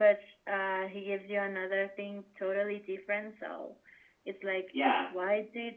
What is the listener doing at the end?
listening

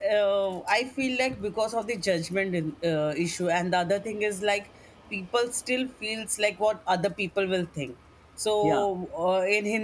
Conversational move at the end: listening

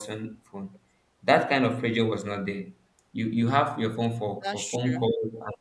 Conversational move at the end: listening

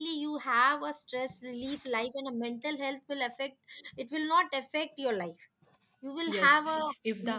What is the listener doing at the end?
taking over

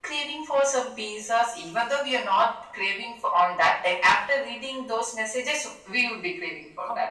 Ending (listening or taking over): taking over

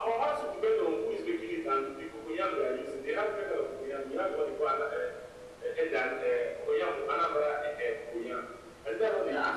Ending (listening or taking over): listening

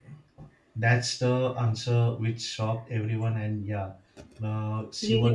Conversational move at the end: listening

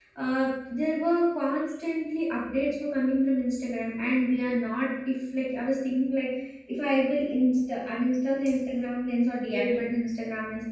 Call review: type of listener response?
listening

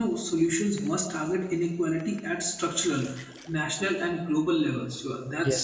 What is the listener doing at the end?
listening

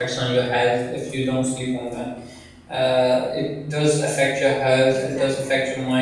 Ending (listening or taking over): listening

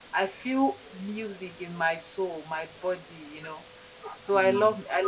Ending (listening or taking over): listening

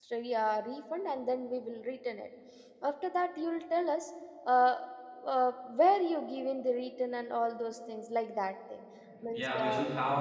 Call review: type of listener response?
taking over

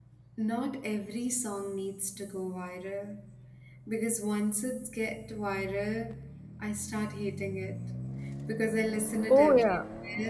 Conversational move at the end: listening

